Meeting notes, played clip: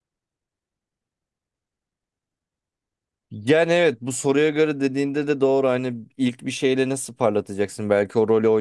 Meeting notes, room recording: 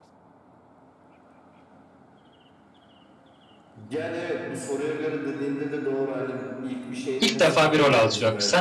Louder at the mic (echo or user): user